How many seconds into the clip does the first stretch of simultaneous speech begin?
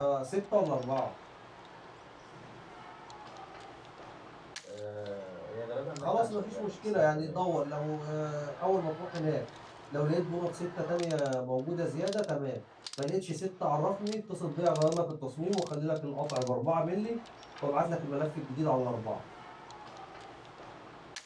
6.0 s

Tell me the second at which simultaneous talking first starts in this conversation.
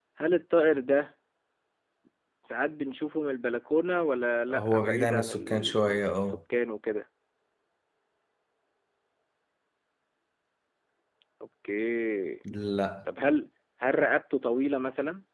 4.5 s

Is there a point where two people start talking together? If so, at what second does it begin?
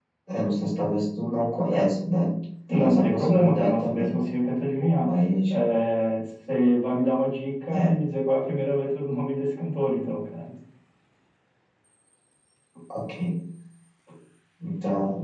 2.7 s

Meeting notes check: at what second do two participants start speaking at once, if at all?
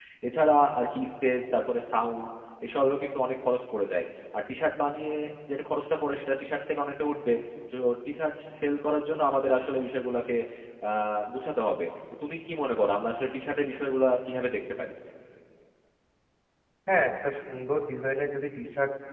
none

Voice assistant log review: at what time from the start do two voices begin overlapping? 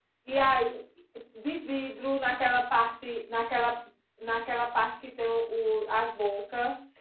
none

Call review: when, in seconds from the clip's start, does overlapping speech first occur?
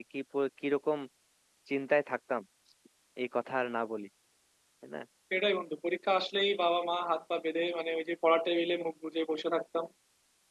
none

